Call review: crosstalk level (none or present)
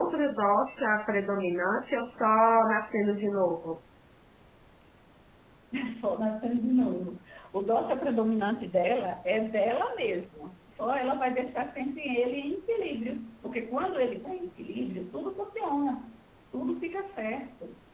none